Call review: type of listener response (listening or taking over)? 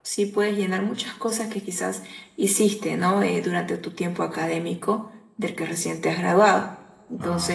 listening